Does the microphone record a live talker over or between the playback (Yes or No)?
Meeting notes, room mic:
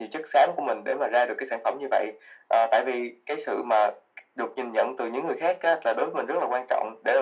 No